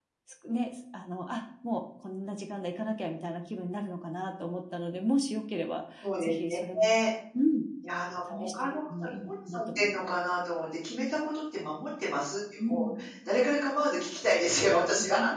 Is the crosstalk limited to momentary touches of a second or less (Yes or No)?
No